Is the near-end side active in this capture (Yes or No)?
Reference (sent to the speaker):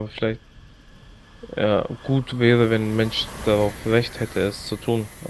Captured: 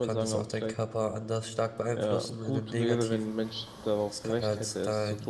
Yes